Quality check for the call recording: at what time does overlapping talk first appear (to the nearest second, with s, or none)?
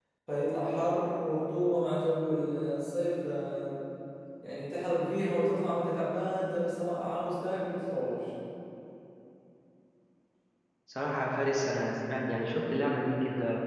none